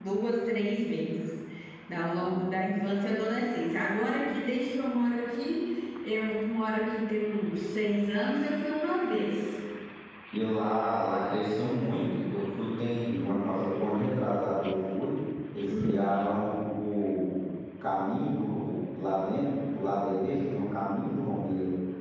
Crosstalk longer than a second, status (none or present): none